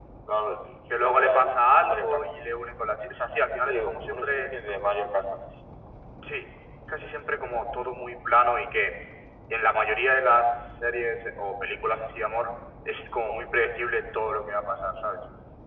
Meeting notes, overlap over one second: present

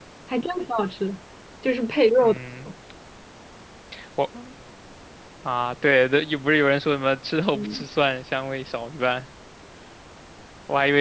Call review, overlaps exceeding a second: none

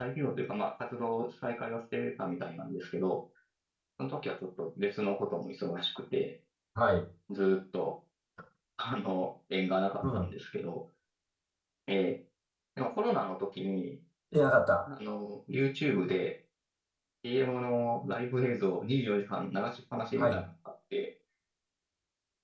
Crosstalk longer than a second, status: none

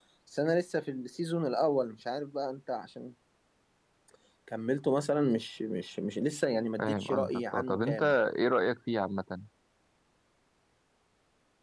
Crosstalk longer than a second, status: present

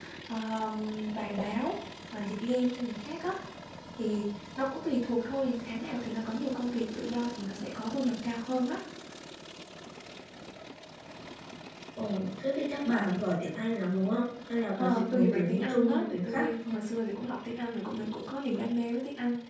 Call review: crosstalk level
present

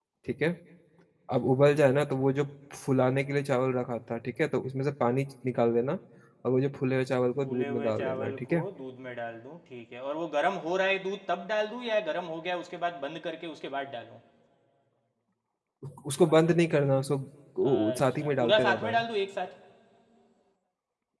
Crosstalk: present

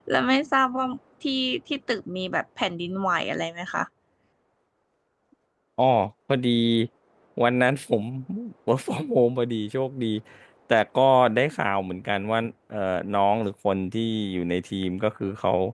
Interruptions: none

